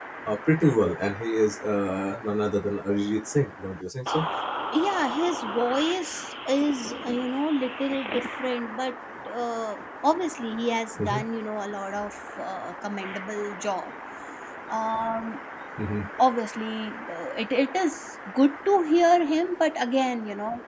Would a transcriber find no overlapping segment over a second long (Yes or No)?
Yes